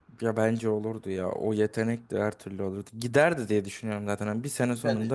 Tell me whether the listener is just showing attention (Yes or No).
Yes